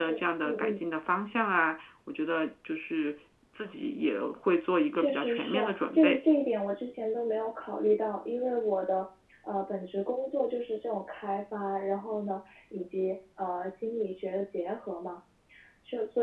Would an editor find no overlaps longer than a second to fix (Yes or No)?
No